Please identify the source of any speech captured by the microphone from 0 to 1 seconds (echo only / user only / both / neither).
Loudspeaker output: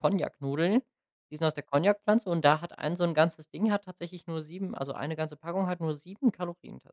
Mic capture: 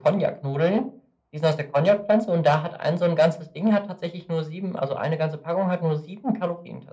echo only